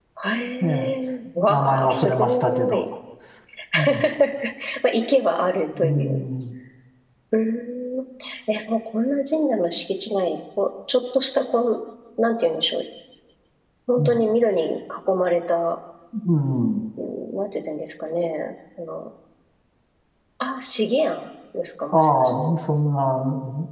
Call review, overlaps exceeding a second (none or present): present